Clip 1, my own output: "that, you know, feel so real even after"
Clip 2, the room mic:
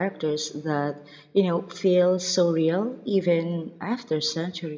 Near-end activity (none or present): none